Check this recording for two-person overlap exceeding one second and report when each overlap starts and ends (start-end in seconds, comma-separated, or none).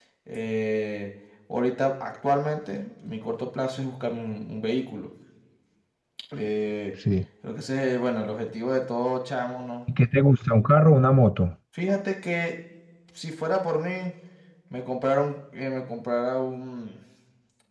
none